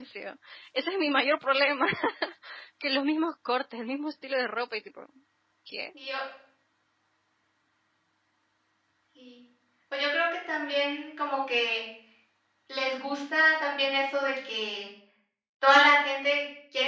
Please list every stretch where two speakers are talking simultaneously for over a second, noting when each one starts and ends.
none

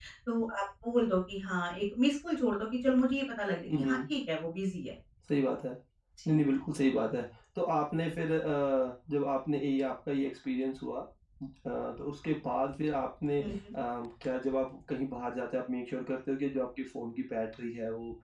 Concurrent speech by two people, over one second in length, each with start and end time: none

